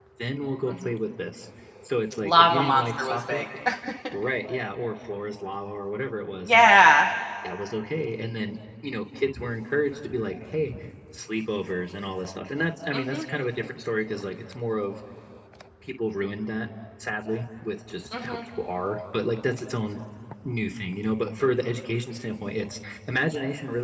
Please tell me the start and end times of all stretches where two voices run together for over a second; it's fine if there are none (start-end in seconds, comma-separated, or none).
2.2-3.5